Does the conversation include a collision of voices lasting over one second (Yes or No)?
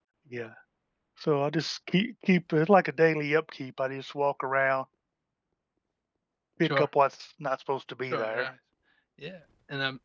No